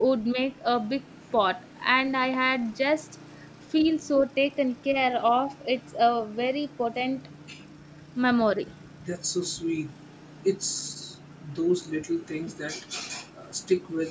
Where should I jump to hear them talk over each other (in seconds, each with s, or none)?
none